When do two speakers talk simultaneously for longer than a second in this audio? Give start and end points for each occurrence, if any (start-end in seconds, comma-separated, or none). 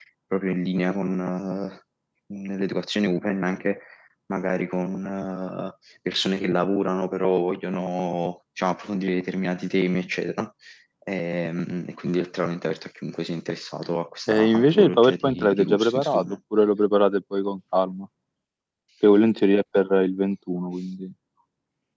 14.3-16.2